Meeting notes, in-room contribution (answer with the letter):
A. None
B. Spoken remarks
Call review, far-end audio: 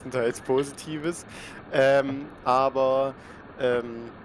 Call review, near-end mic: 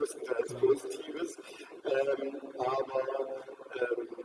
B